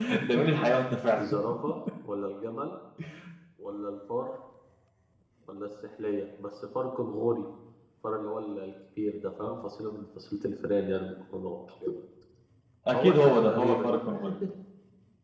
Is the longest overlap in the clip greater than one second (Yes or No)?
Yes